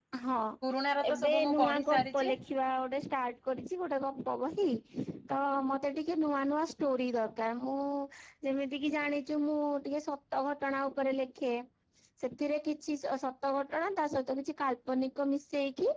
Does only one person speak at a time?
No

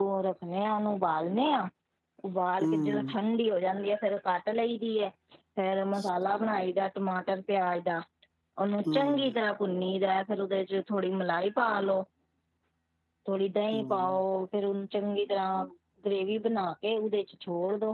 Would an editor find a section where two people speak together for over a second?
No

